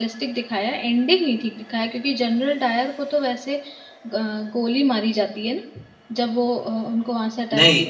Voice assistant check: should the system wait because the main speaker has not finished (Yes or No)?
No